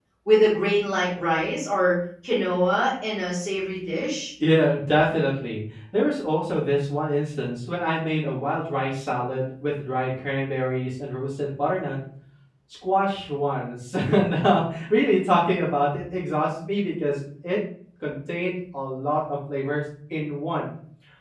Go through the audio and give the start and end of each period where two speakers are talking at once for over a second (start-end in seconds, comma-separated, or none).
none